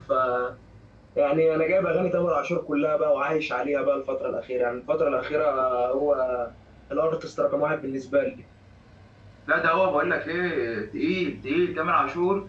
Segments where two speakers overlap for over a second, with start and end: none

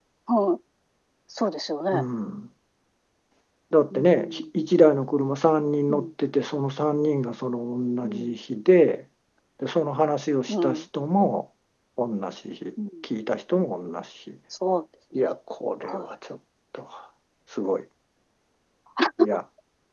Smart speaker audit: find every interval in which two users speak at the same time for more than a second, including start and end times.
none

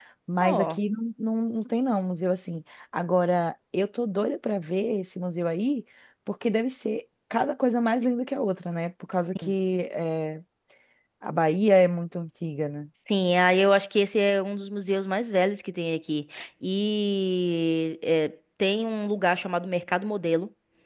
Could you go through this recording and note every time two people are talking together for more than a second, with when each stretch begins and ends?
none

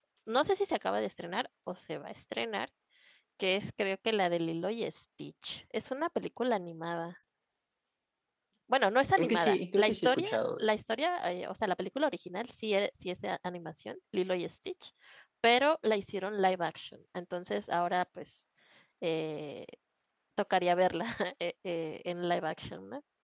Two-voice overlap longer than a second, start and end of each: 9.2-10.7

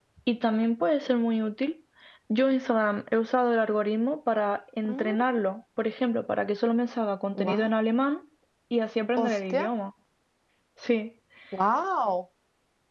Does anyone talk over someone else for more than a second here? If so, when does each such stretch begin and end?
none

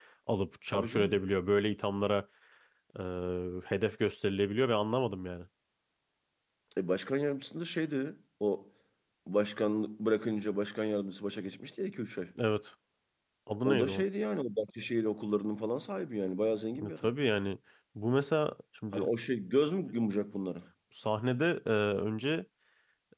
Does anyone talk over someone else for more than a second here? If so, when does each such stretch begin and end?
none

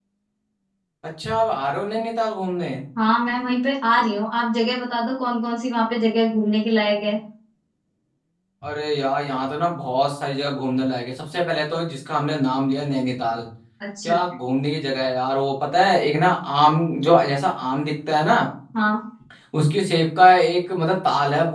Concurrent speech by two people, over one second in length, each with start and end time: none

